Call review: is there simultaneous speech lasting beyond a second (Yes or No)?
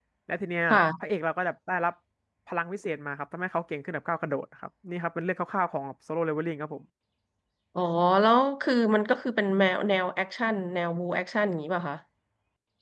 No